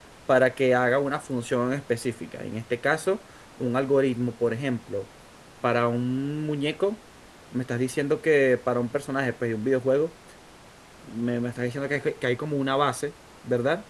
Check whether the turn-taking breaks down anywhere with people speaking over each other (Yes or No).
No